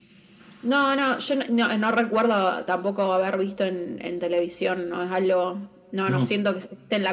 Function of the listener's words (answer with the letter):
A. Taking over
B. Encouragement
B